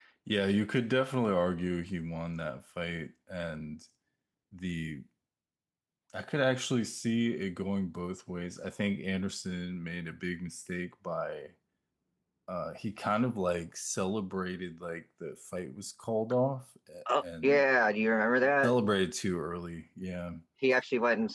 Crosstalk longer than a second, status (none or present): none